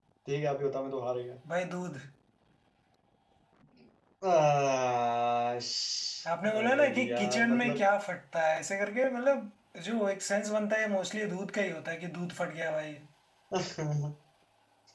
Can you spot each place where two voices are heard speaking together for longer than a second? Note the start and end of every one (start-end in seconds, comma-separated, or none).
6.4-7.8